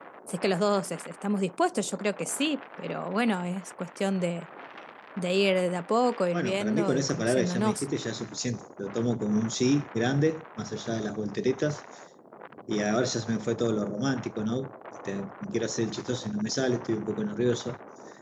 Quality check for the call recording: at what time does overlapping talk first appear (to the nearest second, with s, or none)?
6 s